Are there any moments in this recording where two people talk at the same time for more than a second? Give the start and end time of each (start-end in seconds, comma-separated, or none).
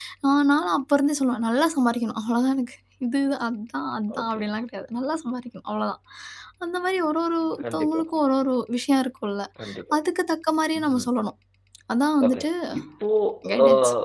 none